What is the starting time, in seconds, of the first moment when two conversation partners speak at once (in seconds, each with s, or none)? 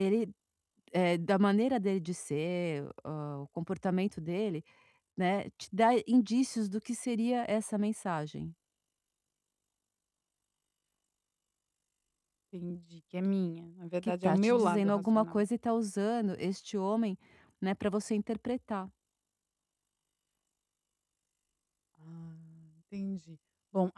14.0 s